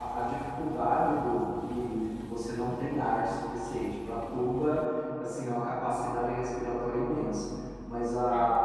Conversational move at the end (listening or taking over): listening